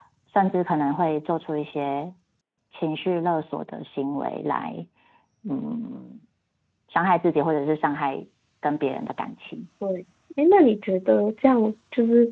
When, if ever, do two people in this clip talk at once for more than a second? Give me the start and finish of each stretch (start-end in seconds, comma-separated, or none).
none